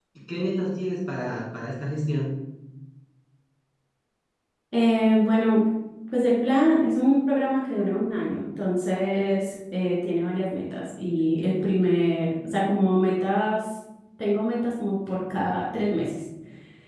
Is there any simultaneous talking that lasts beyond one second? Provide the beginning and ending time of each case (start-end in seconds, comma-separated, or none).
none